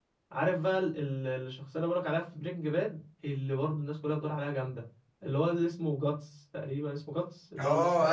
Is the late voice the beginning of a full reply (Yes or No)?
Yes